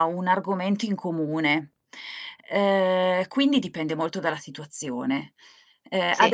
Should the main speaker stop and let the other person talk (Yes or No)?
No